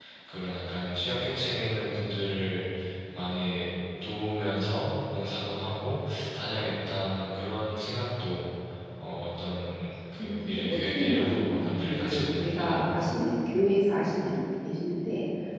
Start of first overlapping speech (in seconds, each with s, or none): 10.2 s